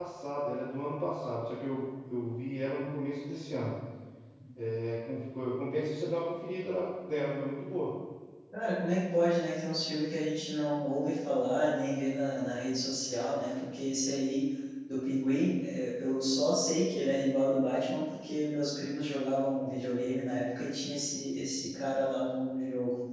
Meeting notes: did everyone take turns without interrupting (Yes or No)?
Yes